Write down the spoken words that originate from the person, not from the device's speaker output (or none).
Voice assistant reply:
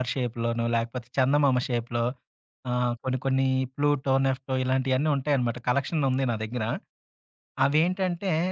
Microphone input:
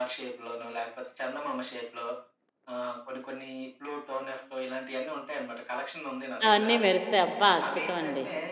అవన్నీ మెరుస్తాయి. అబ్బా! అద్భుతం అండి.